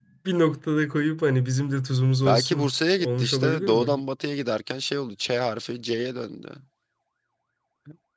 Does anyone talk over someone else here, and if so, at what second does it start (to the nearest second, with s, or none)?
2 s